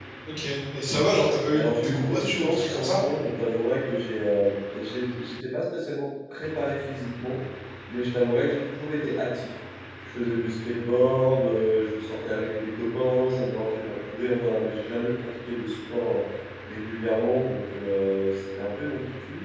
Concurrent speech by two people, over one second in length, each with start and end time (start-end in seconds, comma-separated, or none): 1.5-3.0